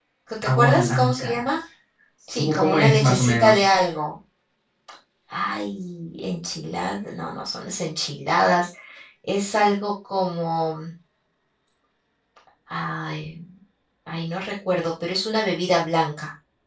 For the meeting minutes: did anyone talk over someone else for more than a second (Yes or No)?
Yes